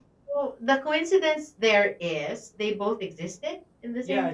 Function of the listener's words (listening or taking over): taking over